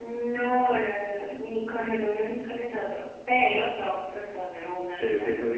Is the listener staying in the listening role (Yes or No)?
No